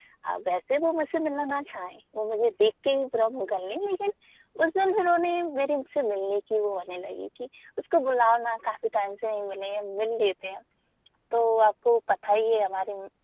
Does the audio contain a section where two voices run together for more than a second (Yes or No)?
No